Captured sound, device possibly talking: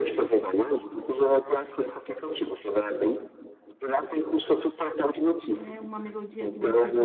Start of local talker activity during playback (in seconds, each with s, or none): 5.5 s